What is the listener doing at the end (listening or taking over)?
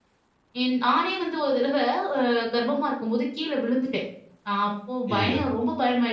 listening